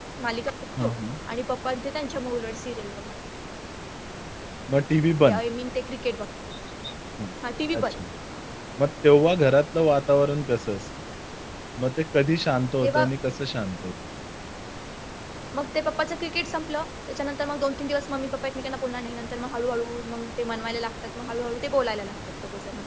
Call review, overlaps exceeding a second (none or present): none